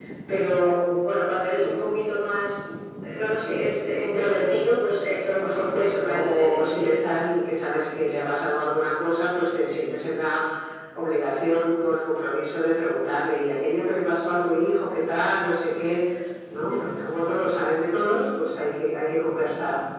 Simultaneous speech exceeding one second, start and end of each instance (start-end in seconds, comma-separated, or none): 5.3-6.9